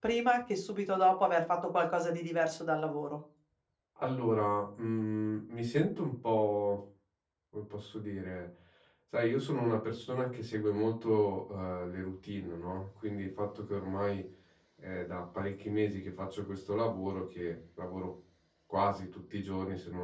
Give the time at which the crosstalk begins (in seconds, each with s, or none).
none